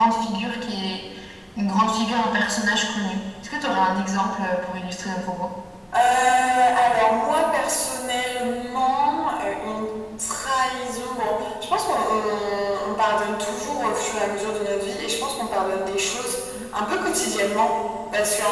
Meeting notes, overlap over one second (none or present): none